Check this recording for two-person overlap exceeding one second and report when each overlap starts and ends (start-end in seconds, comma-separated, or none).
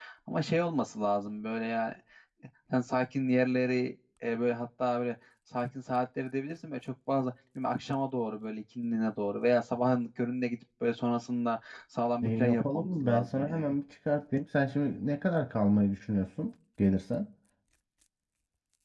12.2-13.6